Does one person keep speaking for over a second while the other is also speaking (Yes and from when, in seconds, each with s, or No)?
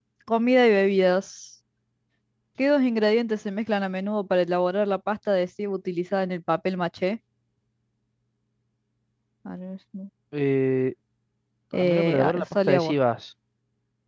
Yes, from 11.7 s